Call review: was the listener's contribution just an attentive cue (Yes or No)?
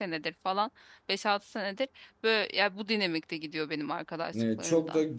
No